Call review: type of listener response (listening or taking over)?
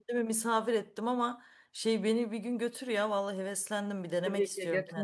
taking over